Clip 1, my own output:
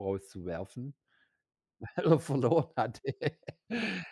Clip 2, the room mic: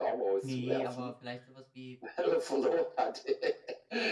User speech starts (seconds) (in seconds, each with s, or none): 0.4 s